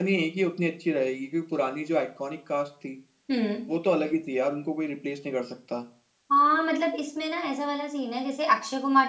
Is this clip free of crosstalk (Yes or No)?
Yes